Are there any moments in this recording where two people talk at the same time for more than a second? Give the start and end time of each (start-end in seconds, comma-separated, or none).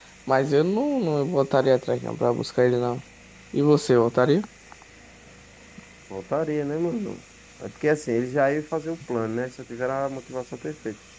none